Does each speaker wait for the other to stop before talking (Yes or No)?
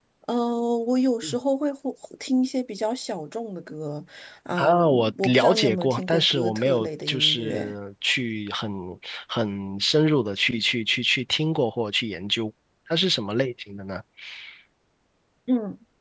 No